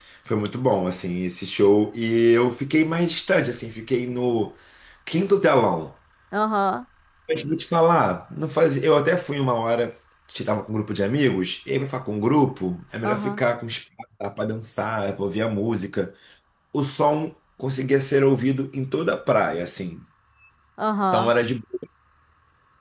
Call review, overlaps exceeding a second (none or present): none